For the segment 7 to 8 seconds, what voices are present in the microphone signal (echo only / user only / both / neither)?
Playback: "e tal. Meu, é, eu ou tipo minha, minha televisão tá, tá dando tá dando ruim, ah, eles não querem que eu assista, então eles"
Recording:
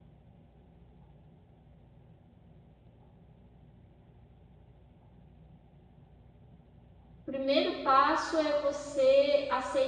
user only